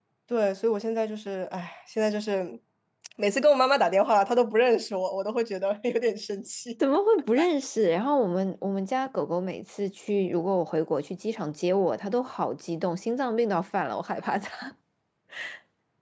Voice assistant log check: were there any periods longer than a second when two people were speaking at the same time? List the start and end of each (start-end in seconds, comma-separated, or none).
none